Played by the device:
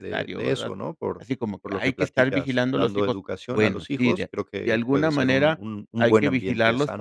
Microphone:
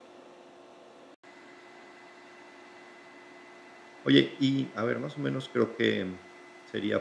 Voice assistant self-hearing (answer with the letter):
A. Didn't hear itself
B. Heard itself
A